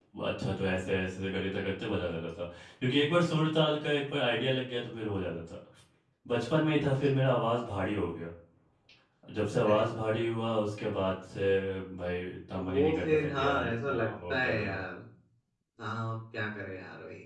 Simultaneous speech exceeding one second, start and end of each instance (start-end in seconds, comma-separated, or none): 12.7-14.6